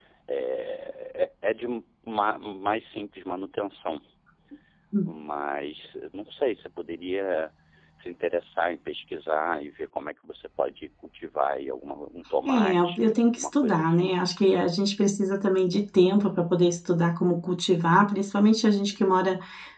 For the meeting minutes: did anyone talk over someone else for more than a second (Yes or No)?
Yes